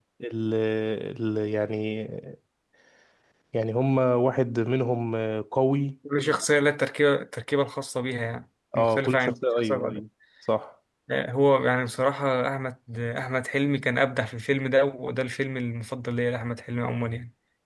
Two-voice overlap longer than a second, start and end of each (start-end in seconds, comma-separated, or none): 8.8-10.0